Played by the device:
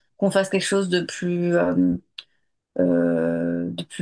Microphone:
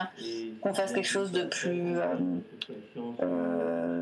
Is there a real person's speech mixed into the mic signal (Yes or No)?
Yes